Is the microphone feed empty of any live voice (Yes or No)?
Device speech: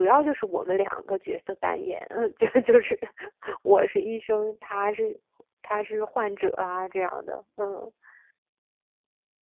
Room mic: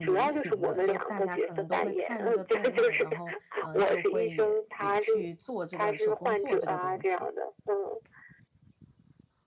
No